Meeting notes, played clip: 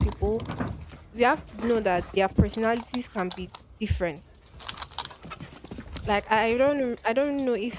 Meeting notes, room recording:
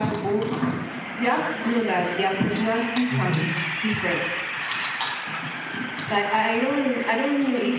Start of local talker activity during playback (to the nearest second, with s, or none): 3 s